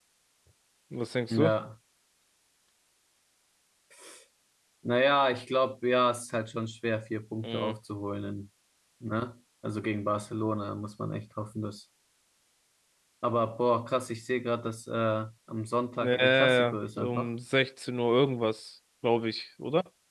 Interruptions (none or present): present